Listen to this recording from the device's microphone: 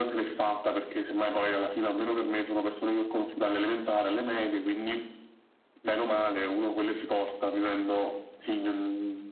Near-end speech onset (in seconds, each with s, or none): none